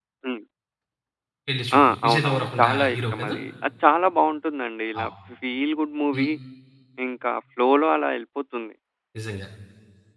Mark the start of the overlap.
2 s

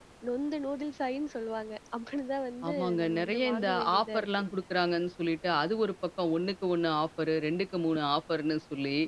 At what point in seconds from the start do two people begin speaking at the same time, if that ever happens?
3 s

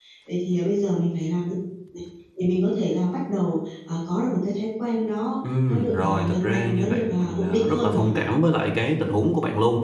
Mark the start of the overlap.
6 s

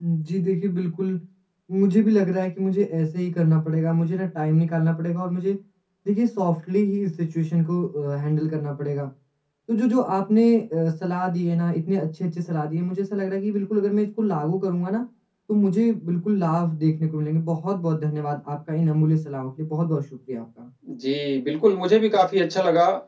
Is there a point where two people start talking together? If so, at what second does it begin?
none

